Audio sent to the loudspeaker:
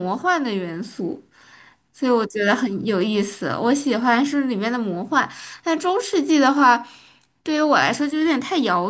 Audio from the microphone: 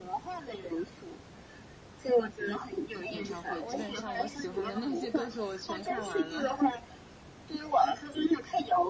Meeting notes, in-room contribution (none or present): present